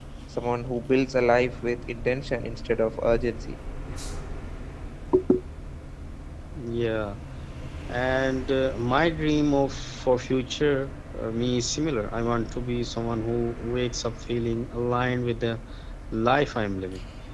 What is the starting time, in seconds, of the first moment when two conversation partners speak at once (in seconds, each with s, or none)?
none